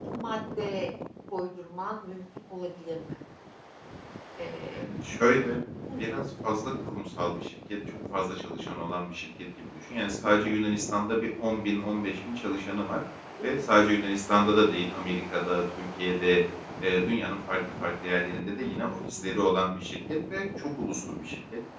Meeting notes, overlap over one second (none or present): present